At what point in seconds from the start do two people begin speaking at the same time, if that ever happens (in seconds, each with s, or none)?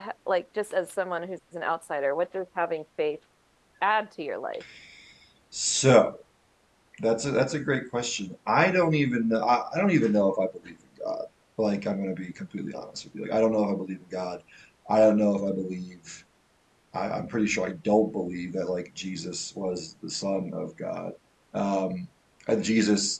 none